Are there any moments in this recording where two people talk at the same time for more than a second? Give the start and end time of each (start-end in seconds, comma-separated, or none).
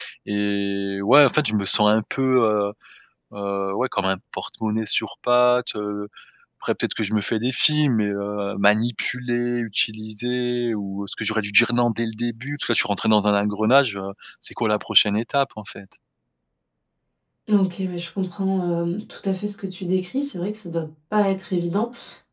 none